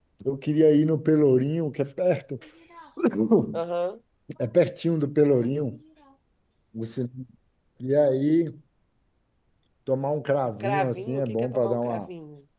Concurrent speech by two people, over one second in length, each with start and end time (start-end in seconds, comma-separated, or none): 10.6-12.0